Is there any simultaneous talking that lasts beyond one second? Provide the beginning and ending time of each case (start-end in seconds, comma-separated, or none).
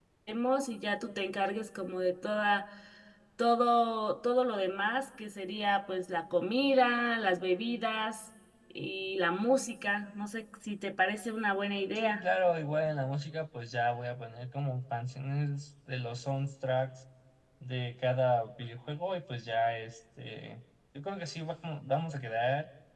none